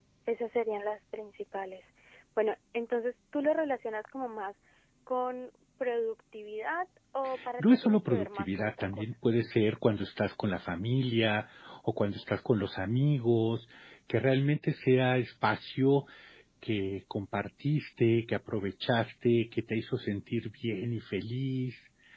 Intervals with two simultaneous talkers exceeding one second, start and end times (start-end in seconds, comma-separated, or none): 7.6-9.1